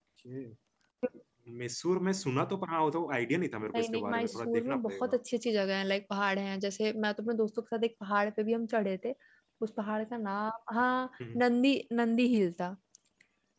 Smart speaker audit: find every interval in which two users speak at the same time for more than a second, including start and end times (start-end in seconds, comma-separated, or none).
3.6-5.2